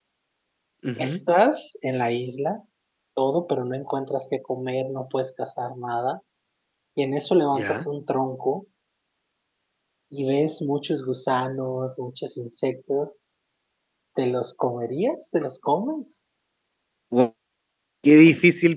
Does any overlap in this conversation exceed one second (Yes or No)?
No